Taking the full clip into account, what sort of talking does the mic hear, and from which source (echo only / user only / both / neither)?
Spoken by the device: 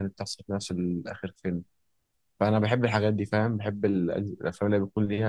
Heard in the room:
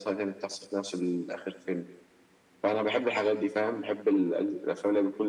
echo only